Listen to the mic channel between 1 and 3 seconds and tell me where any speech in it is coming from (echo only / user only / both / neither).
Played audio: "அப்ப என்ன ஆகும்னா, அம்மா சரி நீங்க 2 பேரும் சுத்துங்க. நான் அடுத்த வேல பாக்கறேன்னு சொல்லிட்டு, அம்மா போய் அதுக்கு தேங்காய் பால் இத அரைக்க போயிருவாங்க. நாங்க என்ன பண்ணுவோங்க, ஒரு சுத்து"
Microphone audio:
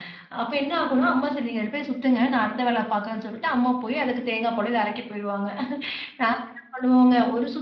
echo only